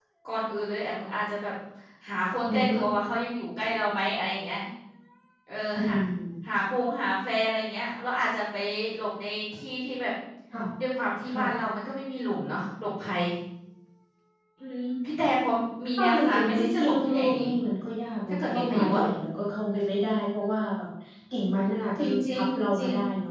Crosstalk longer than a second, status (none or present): present